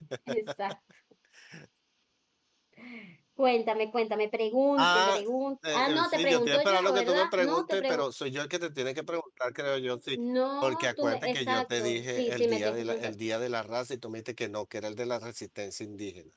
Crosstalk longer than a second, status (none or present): present